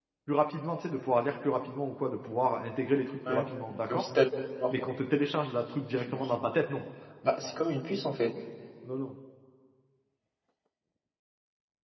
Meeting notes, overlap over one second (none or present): none